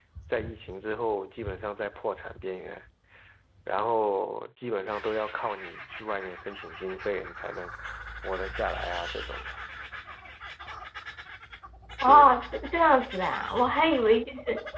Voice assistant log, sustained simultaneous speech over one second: none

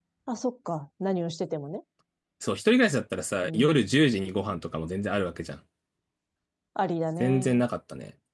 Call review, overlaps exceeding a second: none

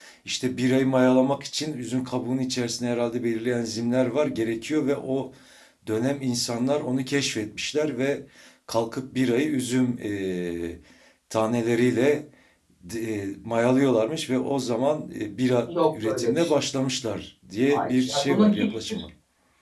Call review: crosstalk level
present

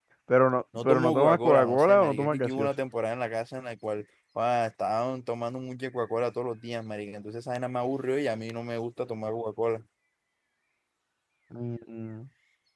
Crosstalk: present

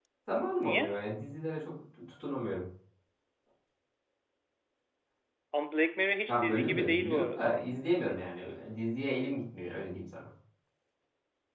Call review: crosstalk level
present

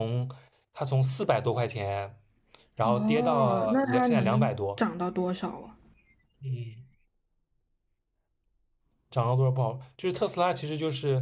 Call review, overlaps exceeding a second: present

